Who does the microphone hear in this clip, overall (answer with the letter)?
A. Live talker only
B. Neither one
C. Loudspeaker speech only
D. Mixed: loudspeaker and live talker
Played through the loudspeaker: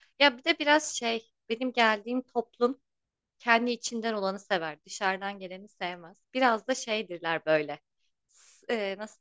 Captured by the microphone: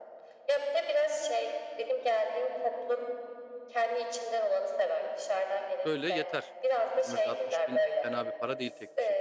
D